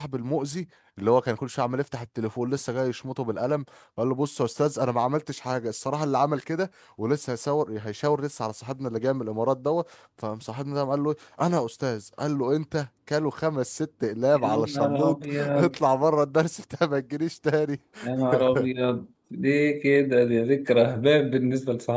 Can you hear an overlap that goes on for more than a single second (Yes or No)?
Yes